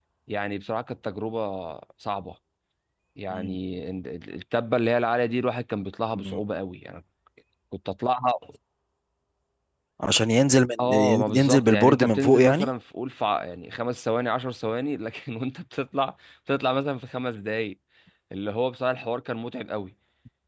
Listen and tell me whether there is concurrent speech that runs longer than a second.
Yes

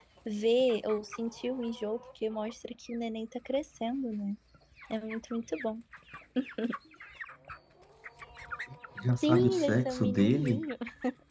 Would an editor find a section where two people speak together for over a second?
Yes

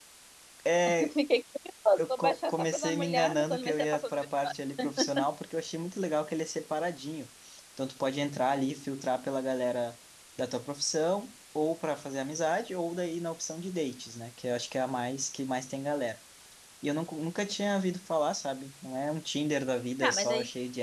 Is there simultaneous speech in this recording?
Yes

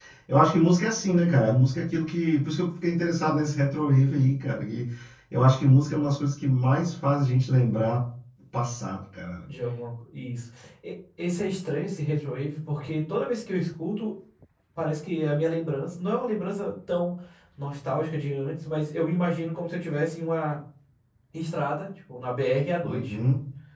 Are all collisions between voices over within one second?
Yes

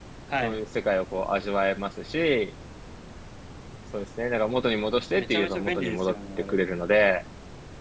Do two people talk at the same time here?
Yes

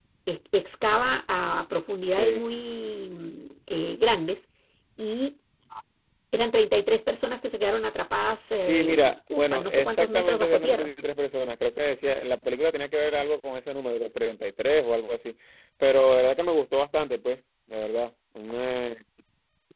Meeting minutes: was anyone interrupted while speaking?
Yes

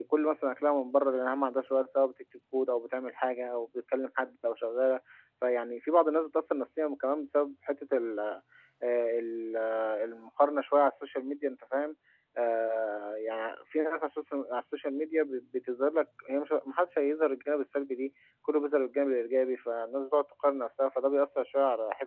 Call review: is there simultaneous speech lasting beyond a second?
No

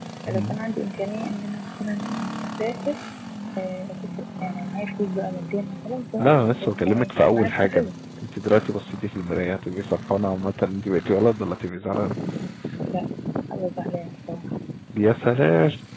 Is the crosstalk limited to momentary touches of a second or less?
No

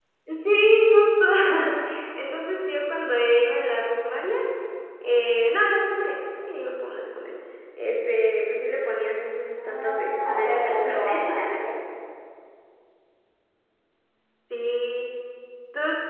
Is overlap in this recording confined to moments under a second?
No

